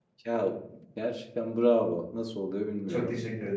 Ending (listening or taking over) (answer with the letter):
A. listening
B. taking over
B